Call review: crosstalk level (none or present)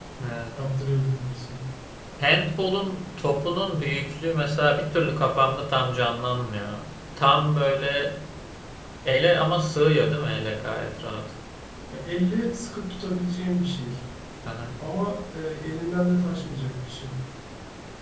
none